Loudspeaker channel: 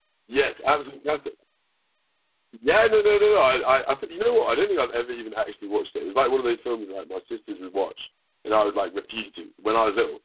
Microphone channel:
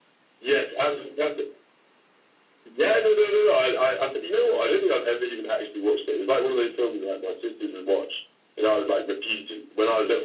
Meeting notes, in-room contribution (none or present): none